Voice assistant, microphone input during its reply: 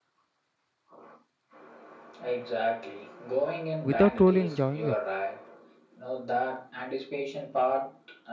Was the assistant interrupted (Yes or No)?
Yes